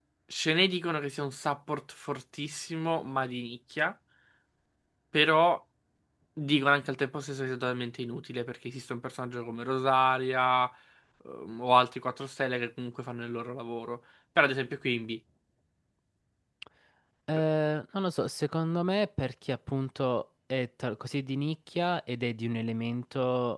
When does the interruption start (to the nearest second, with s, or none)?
none